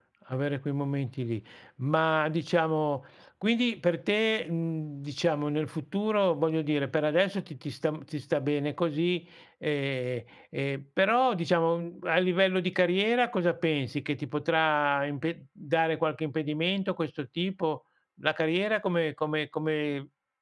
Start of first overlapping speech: none

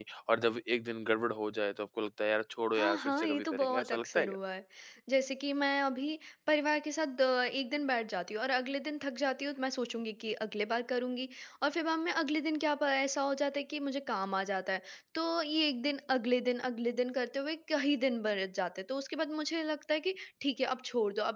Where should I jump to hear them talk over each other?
2.8 s

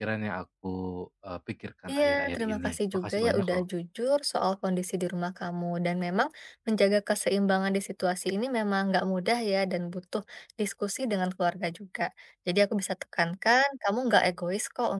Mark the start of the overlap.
1.9 s

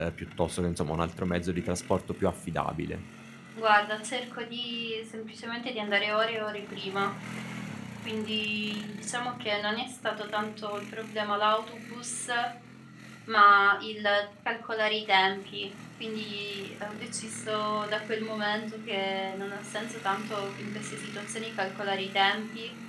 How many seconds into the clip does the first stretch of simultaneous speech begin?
none

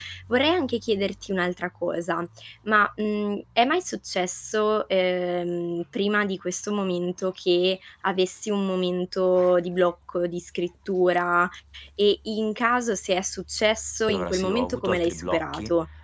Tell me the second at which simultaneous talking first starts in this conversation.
14.1 s

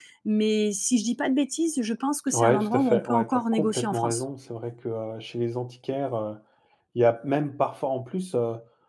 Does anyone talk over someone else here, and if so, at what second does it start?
2.3 s

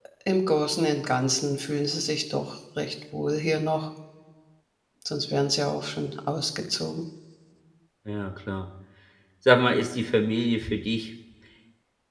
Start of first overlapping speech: none

